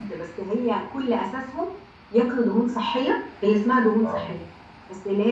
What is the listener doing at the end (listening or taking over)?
listening